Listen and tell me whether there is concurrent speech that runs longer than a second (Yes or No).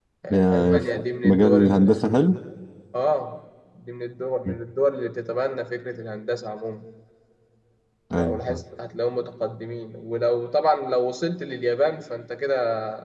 Yes